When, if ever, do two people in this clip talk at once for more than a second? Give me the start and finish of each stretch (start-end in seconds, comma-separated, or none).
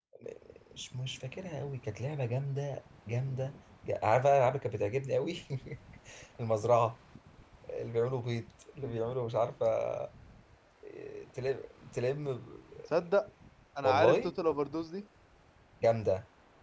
none